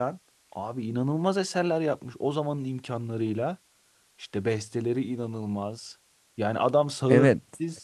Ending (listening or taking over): listening